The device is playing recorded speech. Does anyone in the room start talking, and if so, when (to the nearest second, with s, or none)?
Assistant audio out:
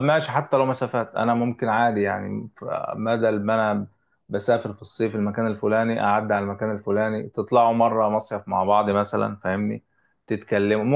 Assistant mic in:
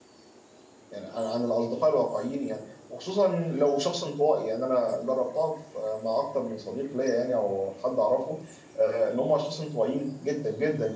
1 s